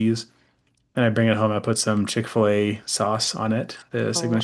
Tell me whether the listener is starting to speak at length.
Yes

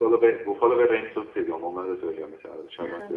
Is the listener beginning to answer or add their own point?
Yes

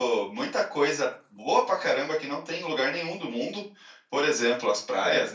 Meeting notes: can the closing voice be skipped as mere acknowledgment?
Yes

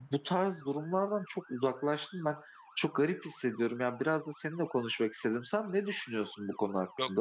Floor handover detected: Yes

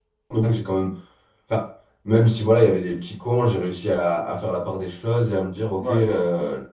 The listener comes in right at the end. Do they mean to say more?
No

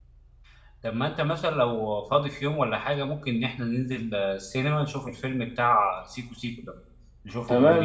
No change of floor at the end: No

